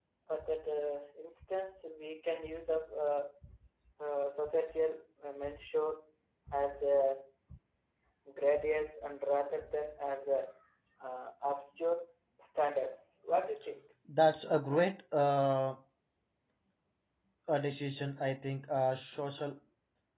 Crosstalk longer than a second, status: none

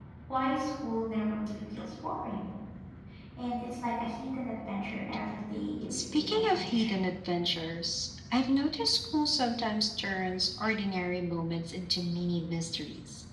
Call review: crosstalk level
present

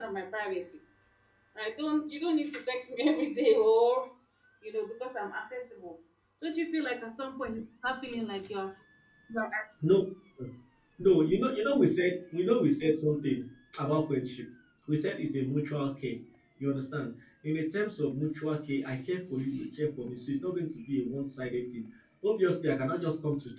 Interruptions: none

